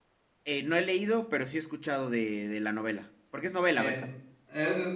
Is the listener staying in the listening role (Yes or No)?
No